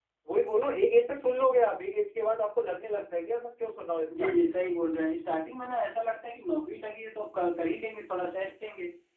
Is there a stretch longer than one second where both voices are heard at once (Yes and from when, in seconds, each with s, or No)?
No